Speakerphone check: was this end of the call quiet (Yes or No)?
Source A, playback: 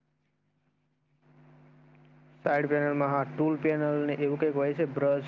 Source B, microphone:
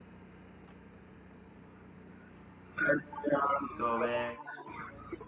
No